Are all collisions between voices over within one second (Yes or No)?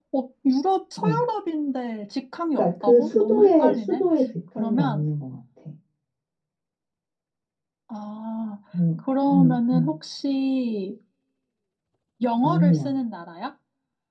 No